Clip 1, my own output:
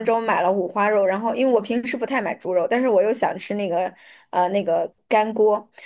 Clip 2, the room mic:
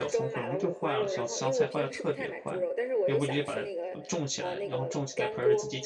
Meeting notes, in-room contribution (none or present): present